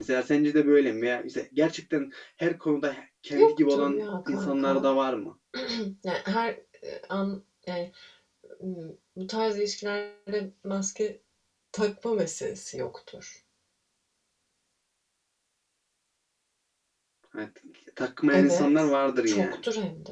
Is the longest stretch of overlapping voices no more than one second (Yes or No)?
No